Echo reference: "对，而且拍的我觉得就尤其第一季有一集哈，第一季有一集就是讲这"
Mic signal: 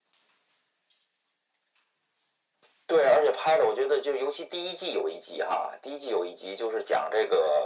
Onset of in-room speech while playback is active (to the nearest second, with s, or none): none